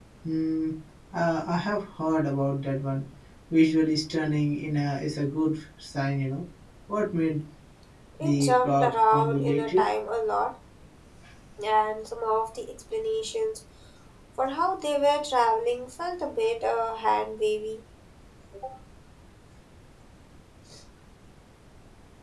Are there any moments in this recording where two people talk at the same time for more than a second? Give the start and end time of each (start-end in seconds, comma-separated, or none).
8.2-9.9